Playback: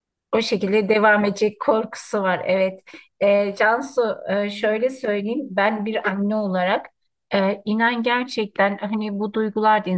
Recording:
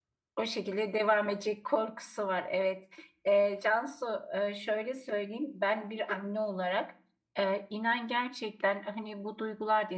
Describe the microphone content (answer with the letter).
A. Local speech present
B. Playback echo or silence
B